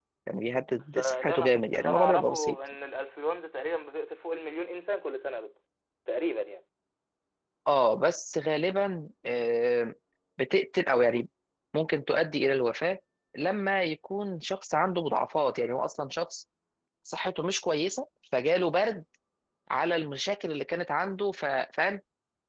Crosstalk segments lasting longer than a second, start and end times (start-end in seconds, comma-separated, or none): 0.9-2.6